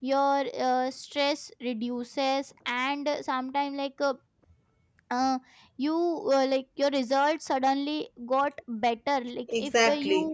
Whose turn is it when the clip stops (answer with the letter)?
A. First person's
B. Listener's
A